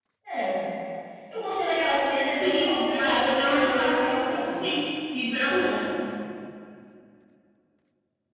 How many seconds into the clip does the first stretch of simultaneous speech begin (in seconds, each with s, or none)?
2.3 s